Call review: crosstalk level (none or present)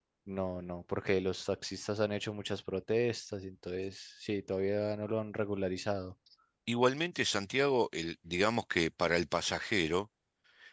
none